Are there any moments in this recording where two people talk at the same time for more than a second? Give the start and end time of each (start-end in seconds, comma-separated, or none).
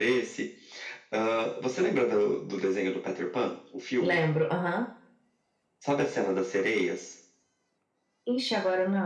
none